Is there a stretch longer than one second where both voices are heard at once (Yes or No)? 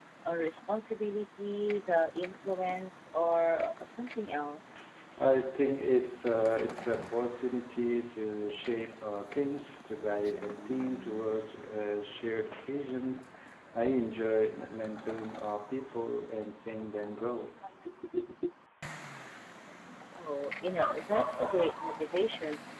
No